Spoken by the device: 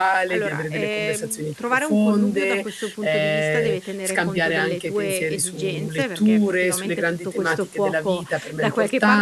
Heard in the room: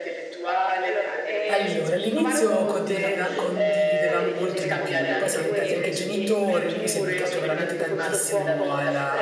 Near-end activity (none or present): present